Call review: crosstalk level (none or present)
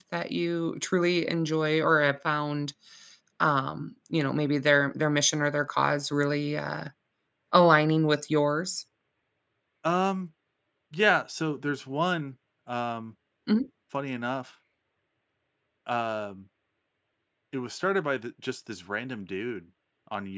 none